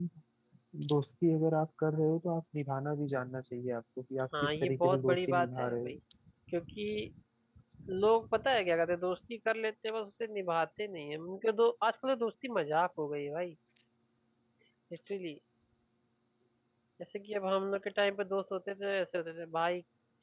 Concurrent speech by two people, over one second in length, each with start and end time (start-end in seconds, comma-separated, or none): 4.4-6.0